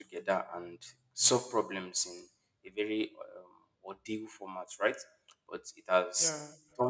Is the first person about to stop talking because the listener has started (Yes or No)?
No